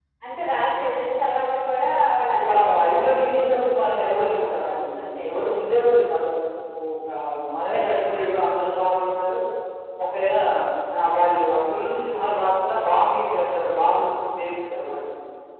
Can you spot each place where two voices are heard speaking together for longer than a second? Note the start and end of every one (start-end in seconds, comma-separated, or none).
2.3-5.5